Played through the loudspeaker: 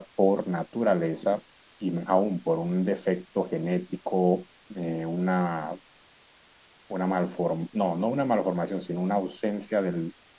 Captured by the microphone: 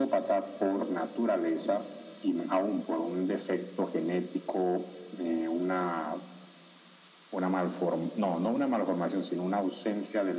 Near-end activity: none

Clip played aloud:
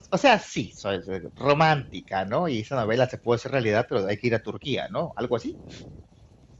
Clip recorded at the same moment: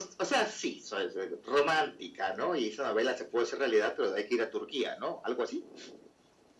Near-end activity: none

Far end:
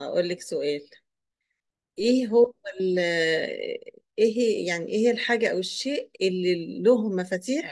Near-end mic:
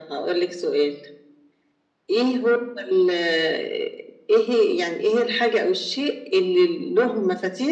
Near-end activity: none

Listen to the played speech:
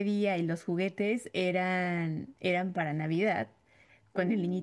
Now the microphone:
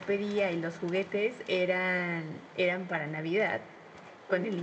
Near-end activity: none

